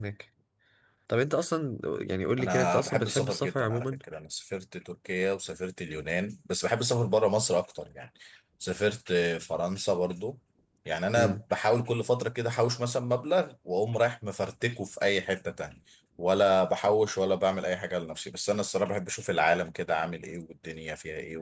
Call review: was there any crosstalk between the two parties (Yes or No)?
Yes